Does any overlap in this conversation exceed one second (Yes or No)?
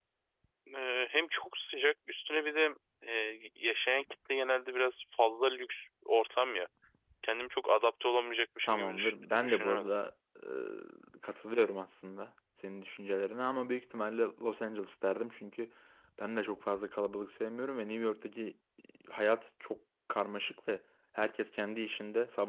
Yes